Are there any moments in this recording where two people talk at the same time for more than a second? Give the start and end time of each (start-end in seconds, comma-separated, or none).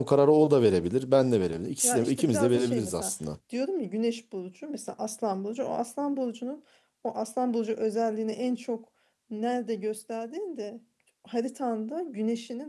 1.8-3.1